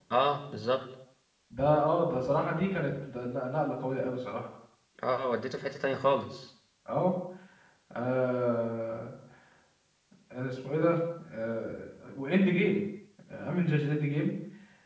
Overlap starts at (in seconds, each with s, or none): none